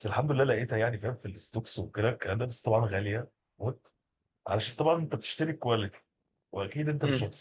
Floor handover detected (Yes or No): No